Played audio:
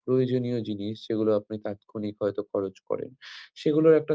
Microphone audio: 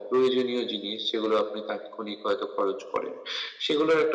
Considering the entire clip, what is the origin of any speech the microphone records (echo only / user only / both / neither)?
echo only